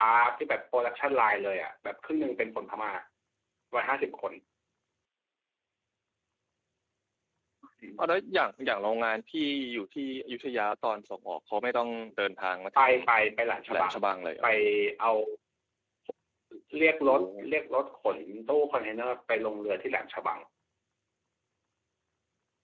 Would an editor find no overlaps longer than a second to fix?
Yes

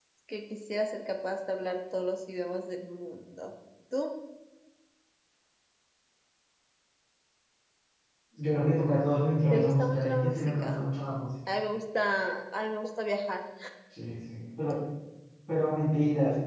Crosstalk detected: Yes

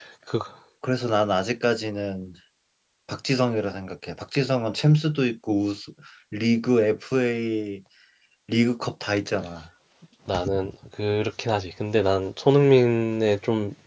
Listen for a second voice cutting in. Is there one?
No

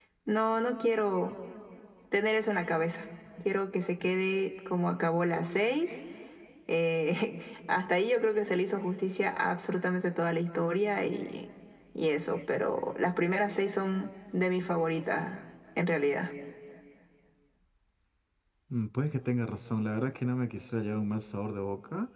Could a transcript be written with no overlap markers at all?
Yes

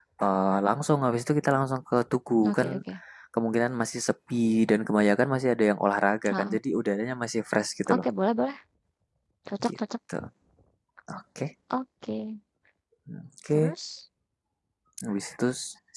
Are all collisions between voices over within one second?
Yes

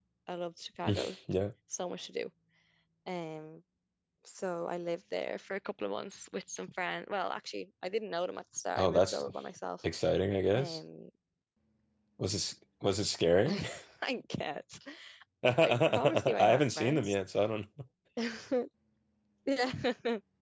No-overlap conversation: No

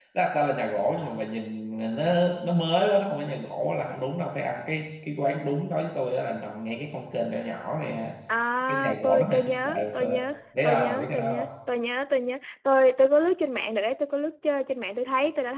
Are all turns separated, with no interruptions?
No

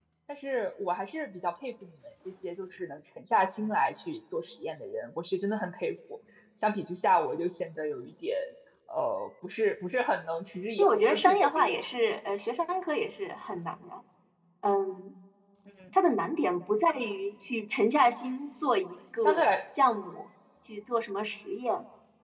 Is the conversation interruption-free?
No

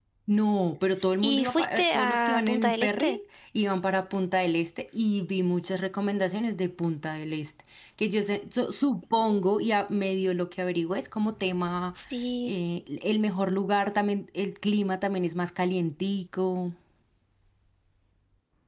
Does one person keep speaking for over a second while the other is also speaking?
Yes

